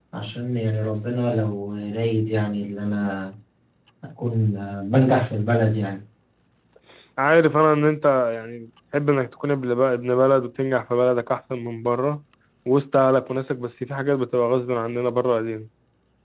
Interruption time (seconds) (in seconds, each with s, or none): none